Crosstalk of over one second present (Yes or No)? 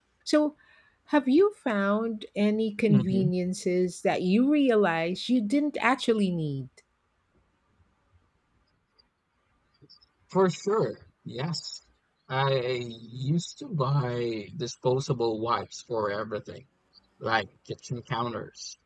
No